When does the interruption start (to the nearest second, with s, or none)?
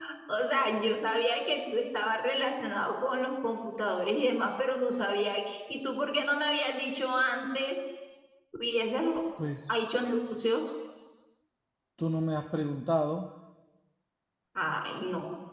none